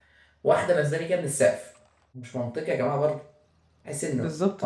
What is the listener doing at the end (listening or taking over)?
taking over